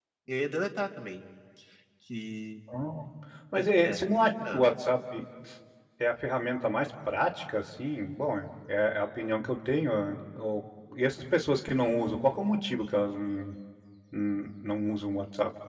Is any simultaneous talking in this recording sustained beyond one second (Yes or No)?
No